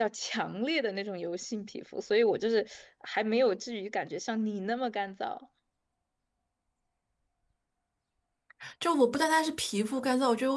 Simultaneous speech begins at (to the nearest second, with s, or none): none